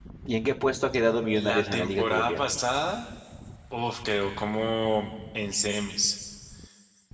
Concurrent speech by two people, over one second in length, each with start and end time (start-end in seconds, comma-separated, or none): 1.3-2.5